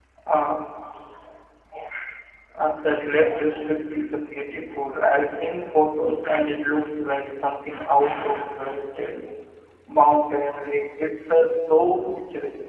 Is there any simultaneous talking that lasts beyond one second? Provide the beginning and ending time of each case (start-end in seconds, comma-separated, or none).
none